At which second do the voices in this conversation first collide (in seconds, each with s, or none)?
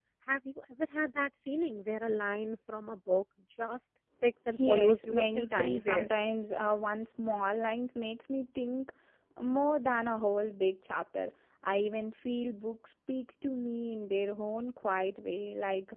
4.6 s